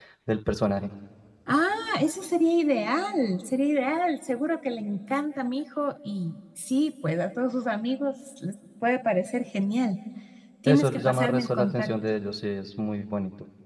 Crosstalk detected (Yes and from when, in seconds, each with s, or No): Yes, from 10.7 s